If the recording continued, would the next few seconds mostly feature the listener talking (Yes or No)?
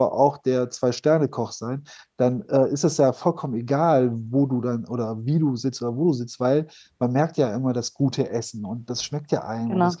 No